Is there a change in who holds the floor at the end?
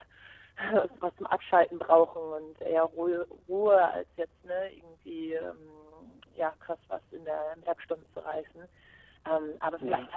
No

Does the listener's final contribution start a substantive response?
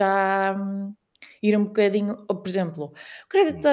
No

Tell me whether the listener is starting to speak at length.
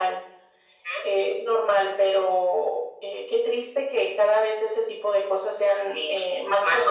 Yes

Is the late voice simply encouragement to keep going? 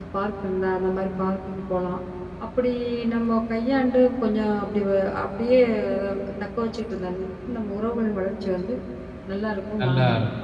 No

